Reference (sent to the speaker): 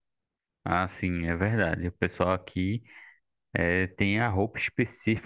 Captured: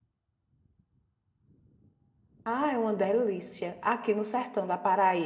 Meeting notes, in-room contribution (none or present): present